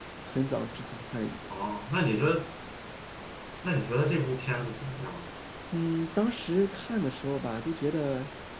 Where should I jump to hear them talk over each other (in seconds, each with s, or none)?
none